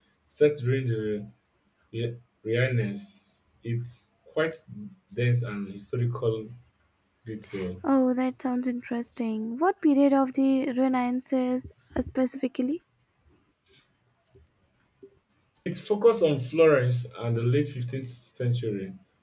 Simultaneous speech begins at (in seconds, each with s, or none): none